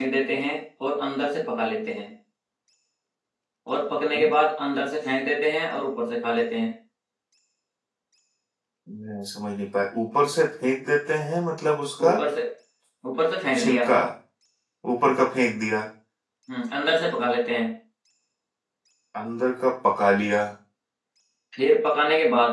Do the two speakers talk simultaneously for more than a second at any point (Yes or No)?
No